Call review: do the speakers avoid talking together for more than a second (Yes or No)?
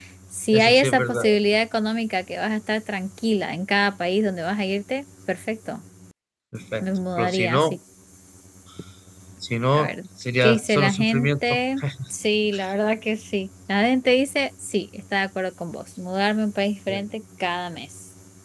No